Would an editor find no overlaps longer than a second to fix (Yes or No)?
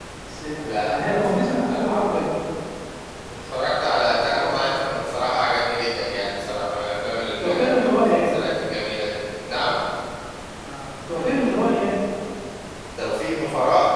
No